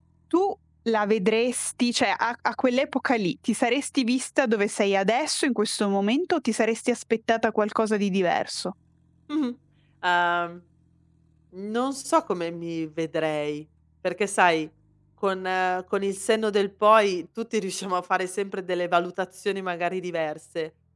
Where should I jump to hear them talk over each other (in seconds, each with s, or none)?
none